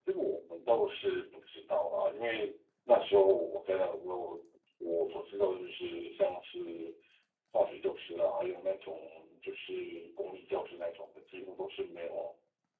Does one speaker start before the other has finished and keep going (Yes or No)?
No